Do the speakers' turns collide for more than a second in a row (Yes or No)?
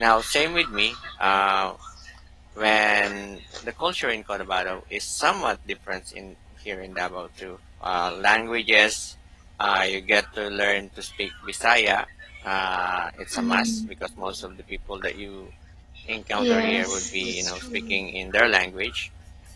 Yes